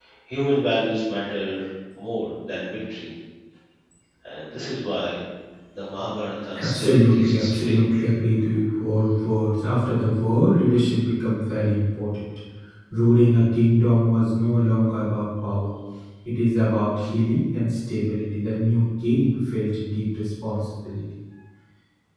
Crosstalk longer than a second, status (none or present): present